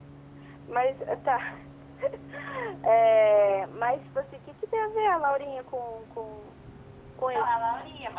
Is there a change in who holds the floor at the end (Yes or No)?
Yes